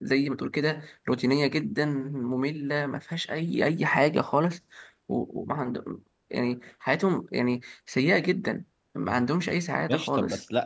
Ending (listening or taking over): taking over